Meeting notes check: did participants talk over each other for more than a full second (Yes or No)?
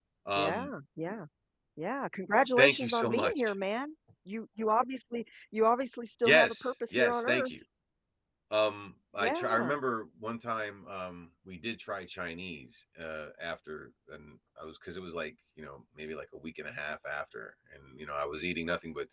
Yes